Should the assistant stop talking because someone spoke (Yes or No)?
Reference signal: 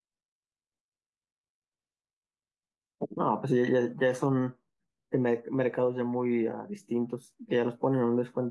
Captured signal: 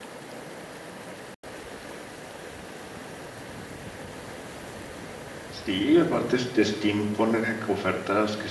Yes